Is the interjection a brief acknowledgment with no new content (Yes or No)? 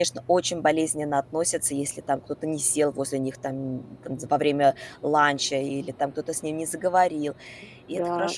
No